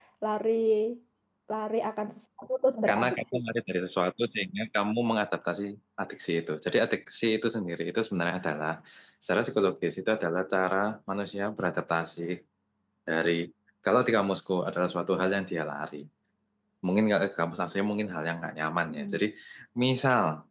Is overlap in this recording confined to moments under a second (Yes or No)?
Yes